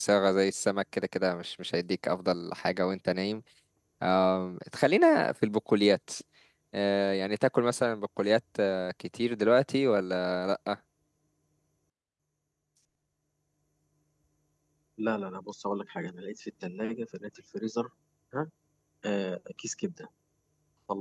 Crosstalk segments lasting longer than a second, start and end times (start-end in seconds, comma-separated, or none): none